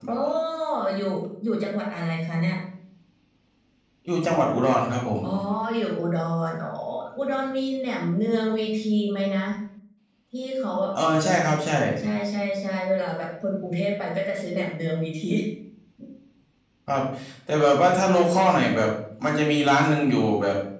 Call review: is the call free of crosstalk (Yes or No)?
Yes